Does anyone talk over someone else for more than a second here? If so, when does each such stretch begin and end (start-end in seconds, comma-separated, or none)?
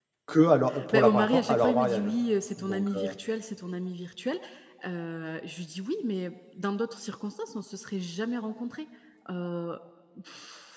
0.9-2.1